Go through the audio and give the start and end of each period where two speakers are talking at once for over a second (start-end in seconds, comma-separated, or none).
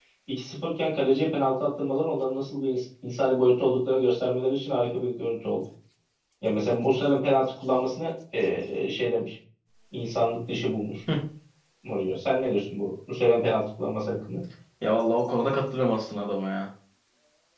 none